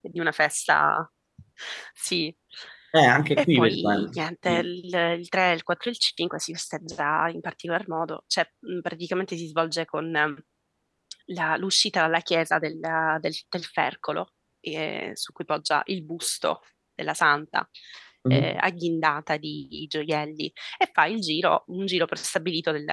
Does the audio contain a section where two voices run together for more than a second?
Yes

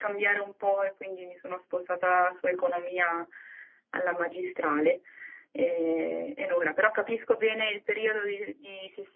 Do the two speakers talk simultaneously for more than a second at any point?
No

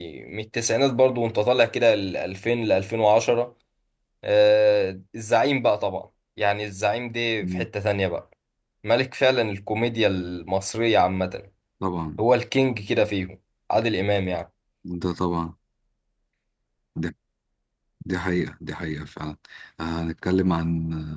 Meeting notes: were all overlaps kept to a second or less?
Yes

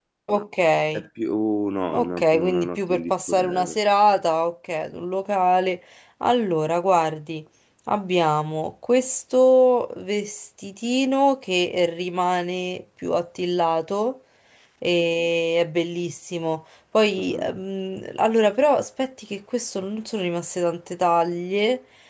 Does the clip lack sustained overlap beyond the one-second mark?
No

